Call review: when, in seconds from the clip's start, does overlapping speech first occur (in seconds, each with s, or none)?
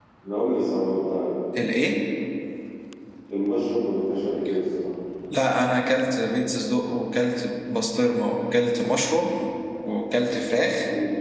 none